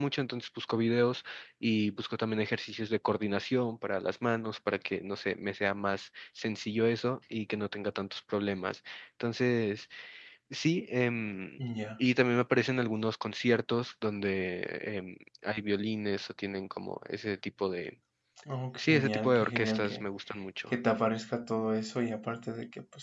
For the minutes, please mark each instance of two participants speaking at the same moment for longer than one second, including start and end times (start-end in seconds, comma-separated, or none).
18.8-20.1